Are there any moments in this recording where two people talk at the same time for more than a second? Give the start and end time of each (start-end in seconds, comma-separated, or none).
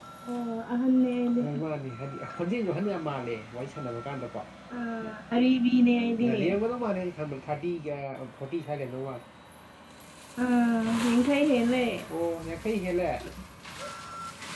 none